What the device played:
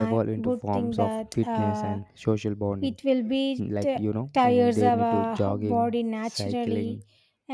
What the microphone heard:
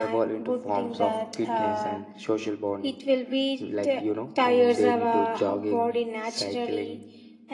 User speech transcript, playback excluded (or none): none